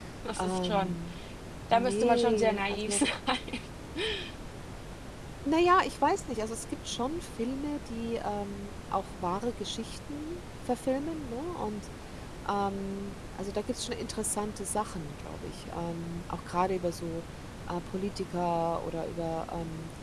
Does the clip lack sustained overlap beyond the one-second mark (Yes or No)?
No